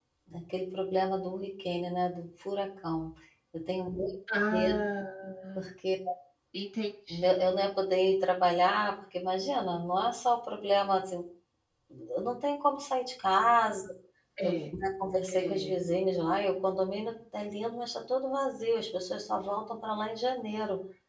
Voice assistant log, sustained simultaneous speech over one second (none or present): none